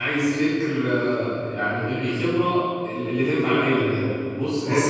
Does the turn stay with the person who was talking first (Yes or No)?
Yes